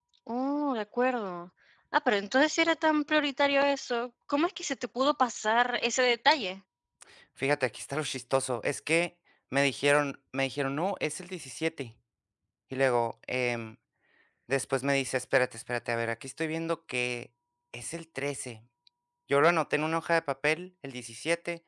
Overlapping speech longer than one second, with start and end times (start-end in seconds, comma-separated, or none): none